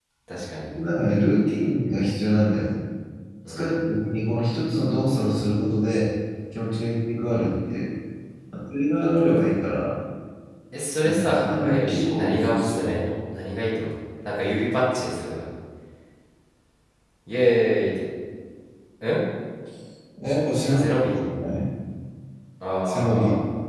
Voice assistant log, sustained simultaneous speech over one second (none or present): present